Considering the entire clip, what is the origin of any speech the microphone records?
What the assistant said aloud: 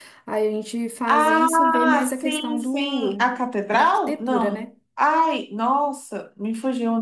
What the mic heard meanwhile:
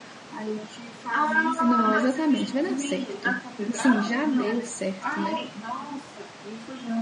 both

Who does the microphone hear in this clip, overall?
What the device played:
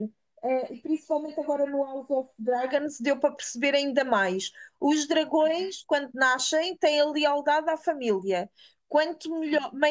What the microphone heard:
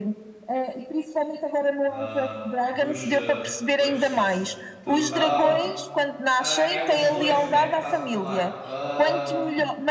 both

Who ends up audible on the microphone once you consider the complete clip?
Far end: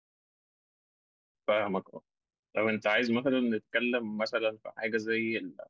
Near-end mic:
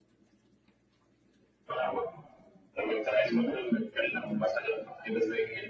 echo only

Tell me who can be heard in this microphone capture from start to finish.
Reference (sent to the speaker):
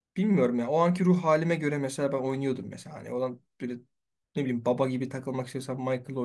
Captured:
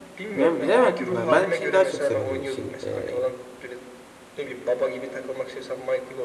both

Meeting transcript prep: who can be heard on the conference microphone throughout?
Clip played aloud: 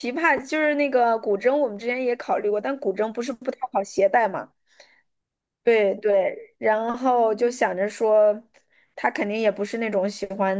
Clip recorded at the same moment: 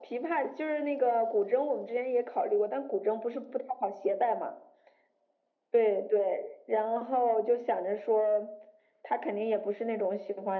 echo only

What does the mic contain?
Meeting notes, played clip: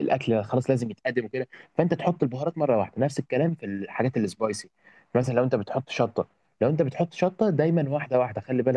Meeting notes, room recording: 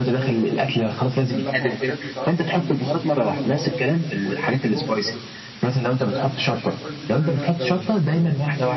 both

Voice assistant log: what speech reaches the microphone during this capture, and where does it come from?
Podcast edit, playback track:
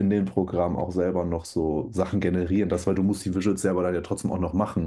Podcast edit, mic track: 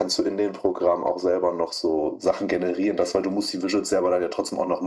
echo only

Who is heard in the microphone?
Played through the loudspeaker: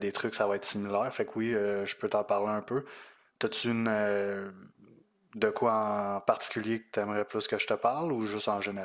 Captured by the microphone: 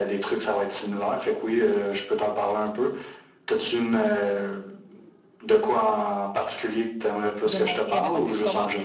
both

